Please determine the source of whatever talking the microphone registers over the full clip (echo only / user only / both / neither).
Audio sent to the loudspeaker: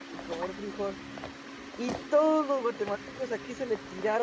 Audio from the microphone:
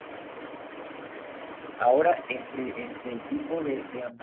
user only